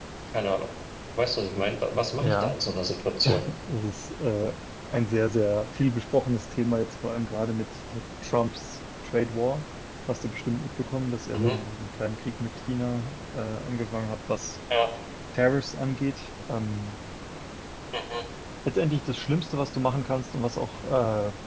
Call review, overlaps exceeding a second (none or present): none